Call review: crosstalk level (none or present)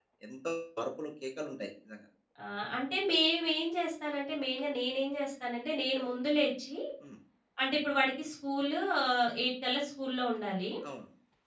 none